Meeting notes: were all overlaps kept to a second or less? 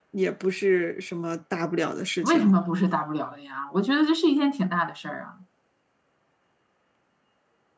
Yes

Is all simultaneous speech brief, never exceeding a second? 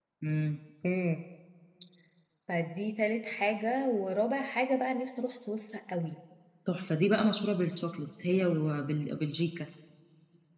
Yes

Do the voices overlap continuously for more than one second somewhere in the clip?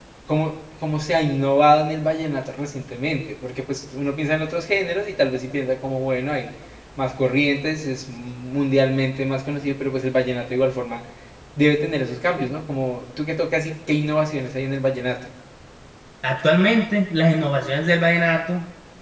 No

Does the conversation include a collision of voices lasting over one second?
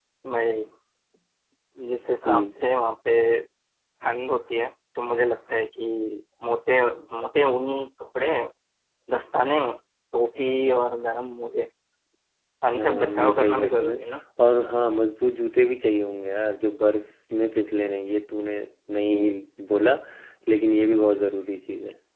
Yes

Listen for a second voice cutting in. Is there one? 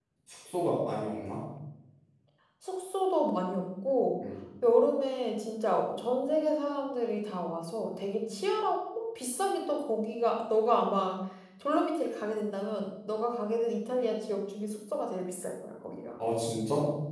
No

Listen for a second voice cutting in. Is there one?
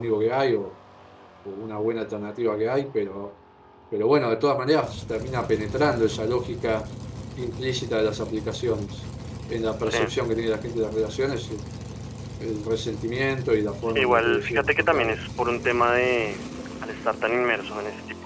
Yes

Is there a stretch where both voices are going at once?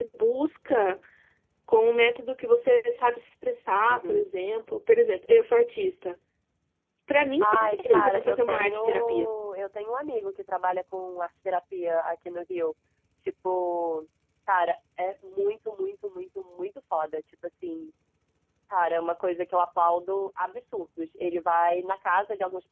Yes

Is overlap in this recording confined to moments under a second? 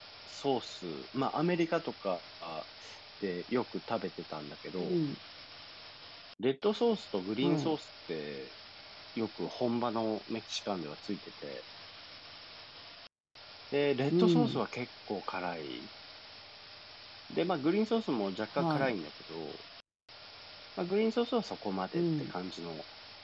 Yes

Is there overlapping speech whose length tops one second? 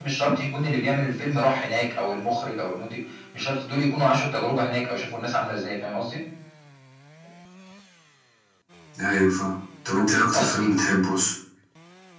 No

